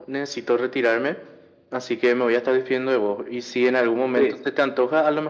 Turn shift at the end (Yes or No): No